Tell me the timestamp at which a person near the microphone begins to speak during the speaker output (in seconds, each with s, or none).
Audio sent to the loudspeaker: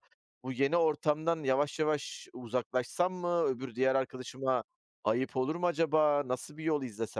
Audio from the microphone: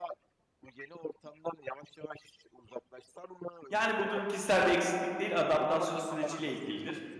3.7 s